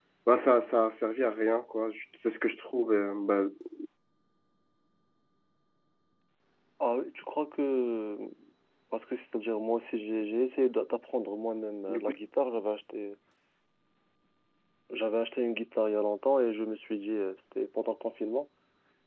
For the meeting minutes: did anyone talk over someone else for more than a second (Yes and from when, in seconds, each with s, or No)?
No